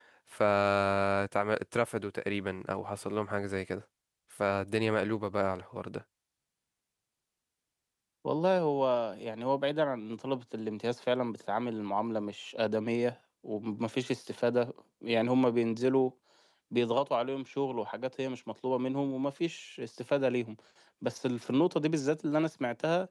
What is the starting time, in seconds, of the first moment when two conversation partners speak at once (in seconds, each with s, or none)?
none